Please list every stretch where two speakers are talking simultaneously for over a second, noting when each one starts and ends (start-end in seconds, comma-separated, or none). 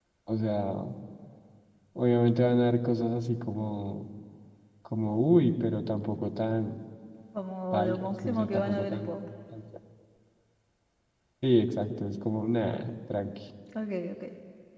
7.7-9.0